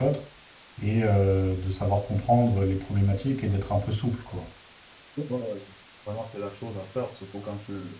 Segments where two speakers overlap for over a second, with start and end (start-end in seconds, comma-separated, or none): none